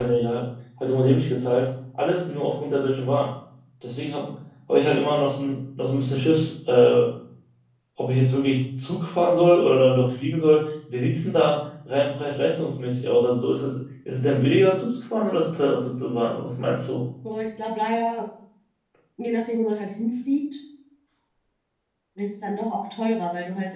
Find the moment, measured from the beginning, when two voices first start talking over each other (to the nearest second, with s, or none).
none